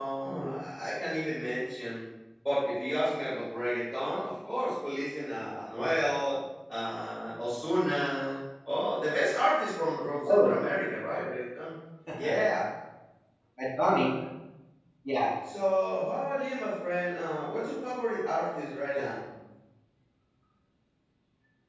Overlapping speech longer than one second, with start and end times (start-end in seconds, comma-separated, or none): none